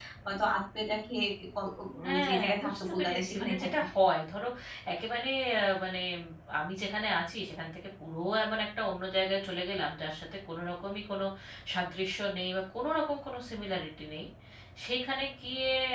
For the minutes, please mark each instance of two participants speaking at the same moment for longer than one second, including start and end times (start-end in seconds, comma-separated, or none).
2.1-3.8